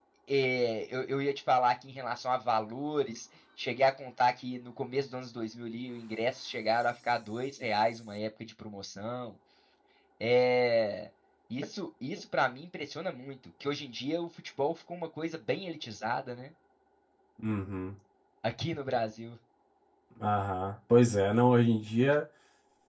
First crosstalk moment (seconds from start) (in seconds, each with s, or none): none